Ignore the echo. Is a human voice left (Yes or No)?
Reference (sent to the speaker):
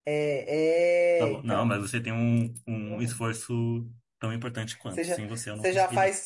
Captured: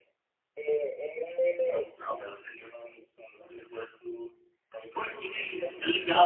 Yes